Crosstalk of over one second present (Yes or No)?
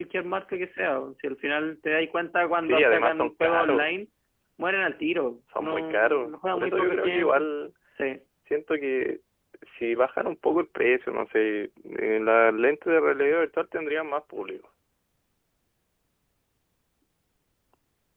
Yes